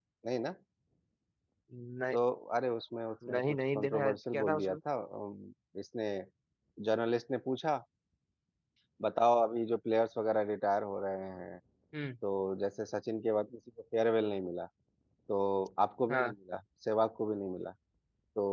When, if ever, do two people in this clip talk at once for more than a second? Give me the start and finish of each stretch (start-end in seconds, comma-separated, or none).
3.3-4.8